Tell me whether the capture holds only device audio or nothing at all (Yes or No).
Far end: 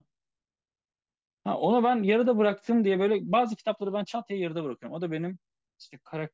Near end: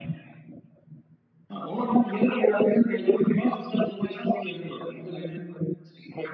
Yes